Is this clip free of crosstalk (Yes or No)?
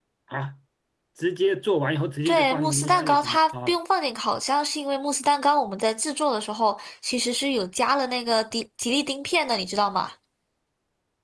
No